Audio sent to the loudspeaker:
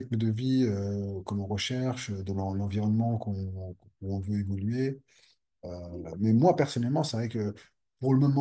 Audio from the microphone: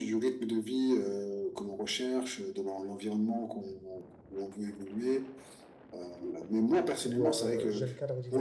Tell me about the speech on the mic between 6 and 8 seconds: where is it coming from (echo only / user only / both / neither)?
both